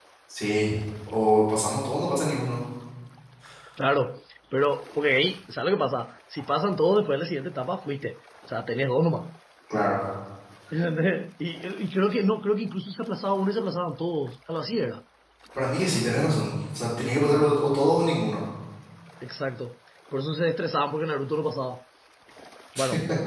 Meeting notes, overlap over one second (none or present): none